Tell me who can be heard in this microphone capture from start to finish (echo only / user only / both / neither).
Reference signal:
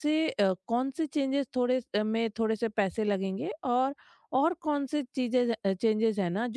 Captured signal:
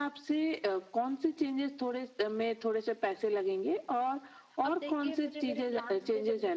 both